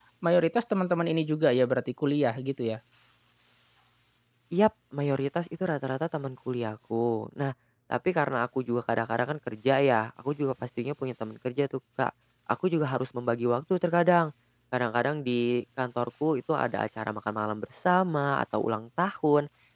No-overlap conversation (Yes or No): Yes